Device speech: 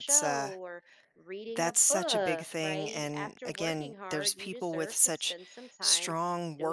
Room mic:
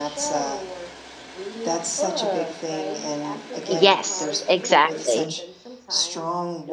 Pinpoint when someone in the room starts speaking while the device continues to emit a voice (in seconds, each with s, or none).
3.7 s